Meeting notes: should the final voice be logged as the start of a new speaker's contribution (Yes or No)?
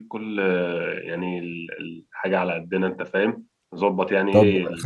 Yes